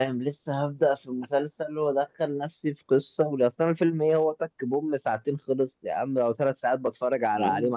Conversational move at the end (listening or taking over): taking over